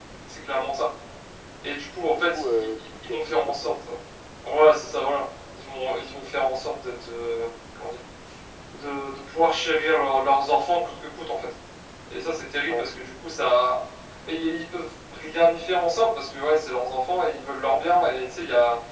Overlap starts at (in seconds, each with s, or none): 2.0 s